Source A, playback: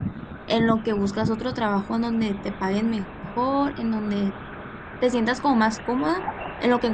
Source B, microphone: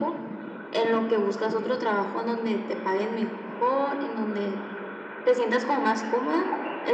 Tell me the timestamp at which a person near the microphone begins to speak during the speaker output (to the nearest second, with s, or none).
none